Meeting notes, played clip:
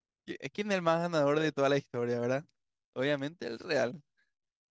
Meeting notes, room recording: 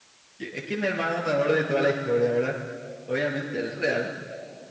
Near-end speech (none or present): none